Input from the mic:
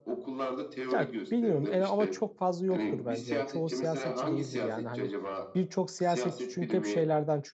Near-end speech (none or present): present